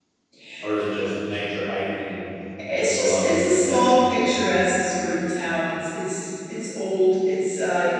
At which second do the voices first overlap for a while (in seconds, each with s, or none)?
2.8 s